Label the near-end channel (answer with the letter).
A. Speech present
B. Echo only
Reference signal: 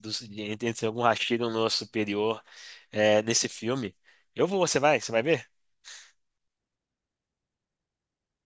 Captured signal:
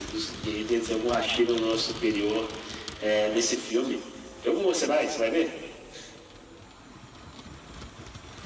B